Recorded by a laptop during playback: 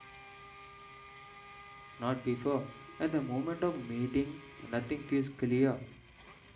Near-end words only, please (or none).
not before. At the moment of meeting, nothing feels clear,